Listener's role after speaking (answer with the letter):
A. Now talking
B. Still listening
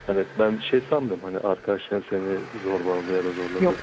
B